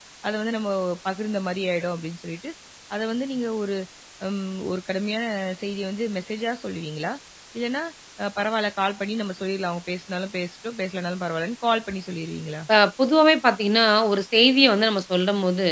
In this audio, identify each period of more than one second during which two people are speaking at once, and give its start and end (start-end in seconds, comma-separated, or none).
none